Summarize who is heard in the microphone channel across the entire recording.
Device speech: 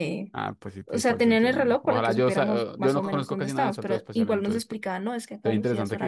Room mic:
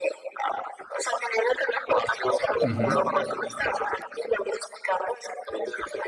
both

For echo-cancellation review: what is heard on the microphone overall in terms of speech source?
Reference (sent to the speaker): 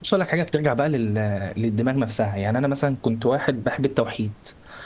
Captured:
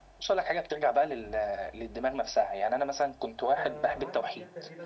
both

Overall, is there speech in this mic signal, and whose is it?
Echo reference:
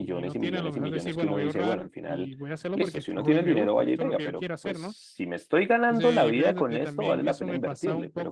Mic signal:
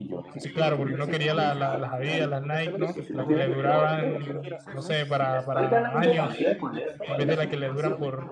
both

